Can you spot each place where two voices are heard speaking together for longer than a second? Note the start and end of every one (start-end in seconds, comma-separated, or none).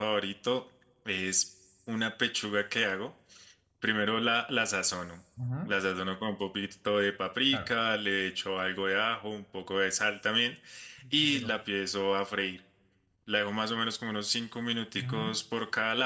none